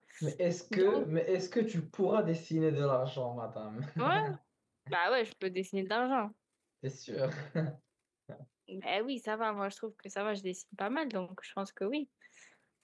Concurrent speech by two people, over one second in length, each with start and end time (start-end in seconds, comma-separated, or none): none